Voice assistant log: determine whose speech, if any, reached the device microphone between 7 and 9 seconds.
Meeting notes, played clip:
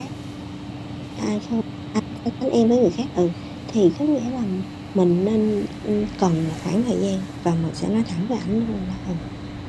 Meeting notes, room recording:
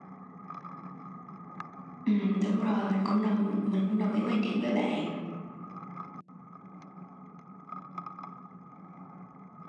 neither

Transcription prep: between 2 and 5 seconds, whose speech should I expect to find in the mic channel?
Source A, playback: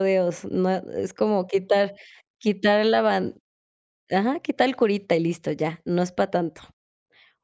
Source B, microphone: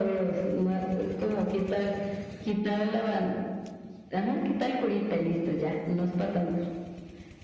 echo only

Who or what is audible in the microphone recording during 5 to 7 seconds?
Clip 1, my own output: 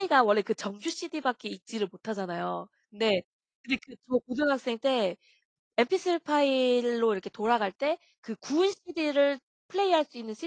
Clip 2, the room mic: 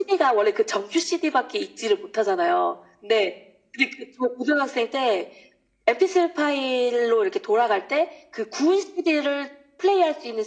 echo only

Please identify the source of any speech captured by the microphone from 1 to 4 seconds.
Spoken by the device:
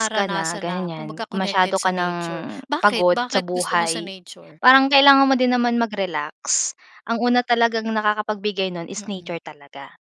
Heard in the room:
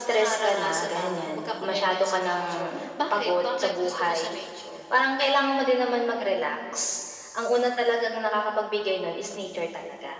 echo only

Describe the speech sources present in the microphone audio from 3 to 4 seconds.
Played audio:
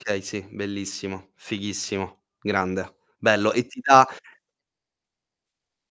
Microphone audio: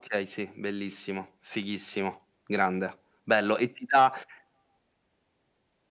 echo only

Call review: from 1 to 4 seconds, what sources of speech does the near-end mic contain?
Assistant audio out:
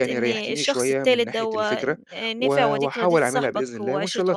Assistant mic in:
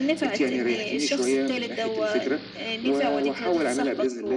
echo only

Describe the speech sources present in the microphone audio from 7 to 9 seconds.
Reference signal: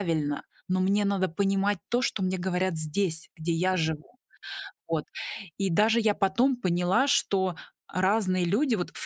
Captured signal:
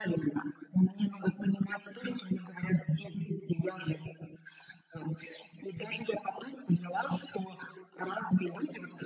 echo only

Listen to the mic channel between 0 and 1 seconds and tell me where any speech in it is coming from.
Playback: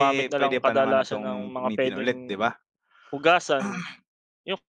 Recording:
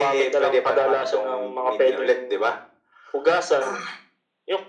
echo only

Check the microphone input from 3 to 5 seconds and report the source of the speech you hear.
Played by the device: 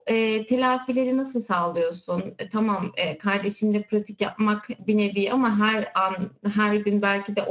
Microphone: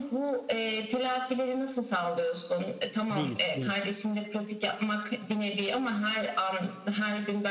both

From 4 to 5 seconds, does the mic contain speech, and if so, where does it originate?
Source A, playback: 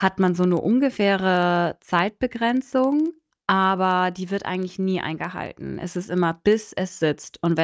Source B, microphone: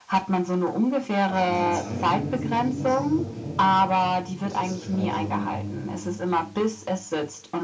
both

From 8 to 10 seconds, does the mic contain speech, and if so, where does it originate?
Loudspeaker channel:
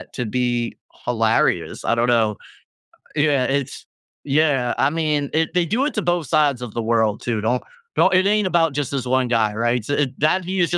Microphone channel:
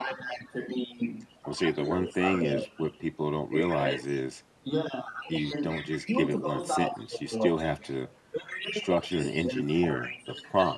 both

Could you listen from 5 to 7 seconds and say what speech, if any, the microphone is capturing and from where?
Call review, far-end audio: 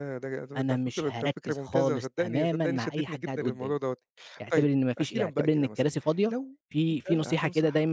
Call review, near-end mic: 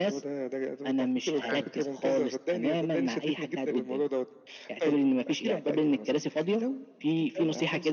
echo only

